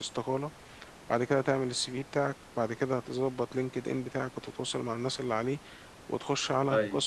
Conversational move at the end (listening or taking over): listening